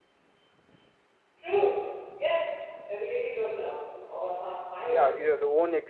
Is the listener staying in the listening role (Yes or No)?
No